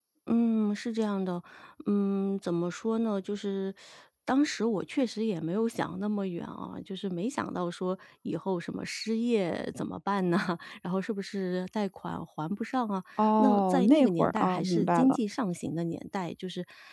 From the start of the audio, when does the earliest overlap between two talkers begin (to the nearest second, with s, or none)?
13 s